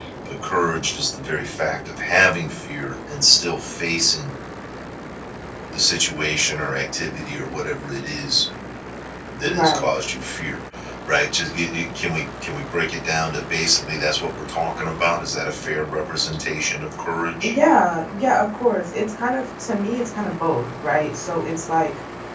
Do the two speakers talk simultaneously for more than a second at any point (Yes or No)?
No